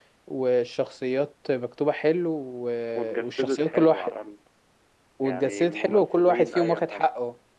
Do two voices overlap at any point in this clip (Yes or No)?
Yes